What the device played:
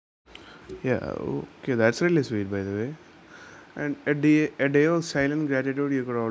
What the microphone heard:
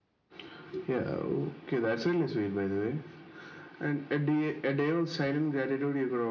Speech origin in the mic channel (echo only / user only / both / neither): echo only